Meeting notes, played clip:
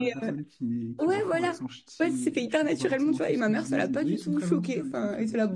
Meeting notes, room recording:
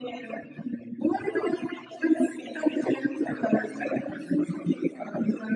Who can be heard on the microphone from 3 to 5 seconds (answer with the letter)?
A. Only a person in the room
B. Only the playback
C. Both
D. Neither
B